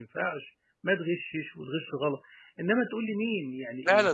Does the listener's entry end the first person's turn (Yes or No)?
Yes